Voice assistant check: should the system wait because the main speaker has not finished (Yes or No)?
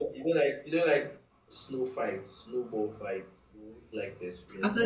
No